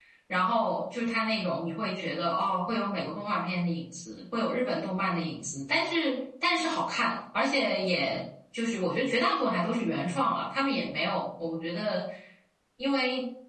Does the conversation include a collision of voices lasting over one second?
No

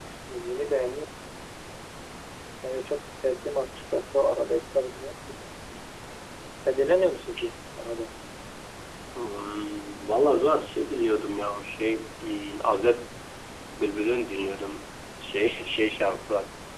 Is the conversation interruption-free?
Yes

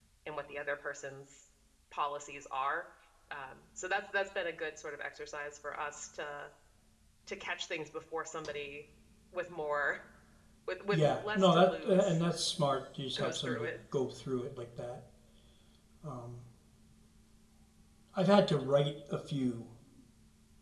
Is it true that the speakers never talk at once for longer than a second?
No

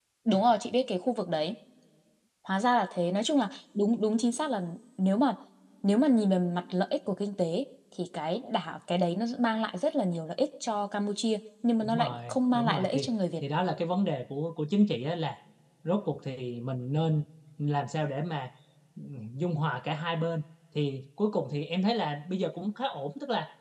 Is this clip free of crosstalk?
No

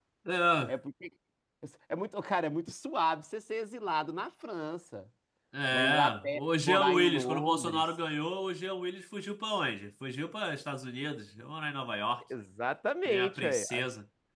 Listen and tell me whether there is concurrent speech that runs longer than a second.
Yes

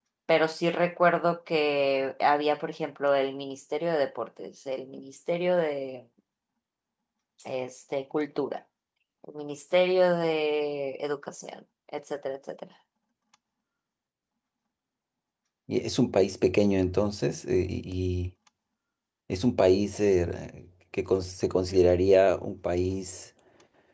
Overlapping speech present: No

